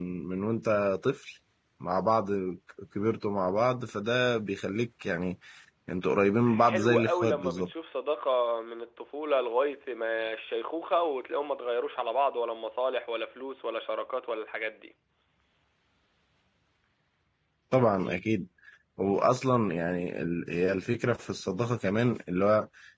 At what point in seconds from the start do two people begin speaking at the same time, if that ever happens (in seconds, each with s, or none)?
6.5 s